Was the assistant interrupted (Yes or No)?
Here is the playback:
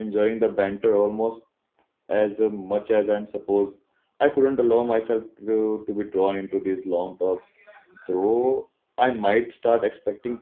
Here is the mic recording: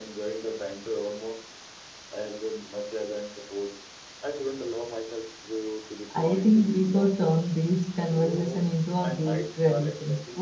Yes